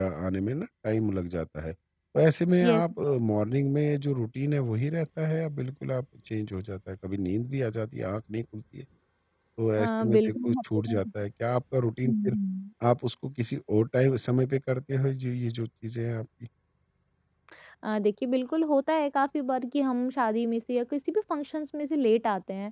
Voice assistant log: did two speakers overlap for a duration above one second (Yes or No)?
Yes